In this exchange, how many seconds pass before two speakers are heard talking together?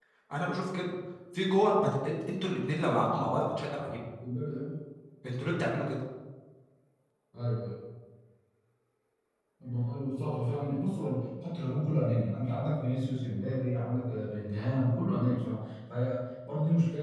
none

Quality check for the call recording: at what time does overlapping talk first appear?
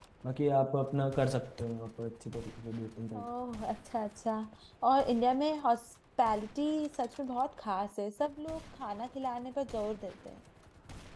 none

